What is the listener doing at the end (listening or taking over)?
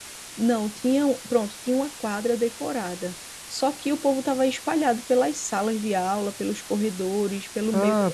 taking over